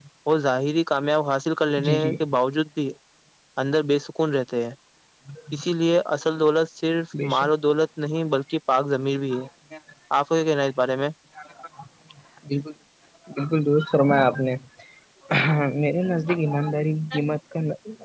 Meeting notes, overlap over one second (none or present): none